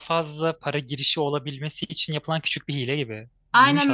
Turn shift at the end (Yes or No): Yes